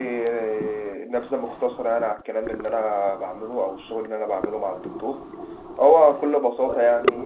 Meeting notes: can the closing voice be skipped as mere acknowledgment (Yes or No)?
Yes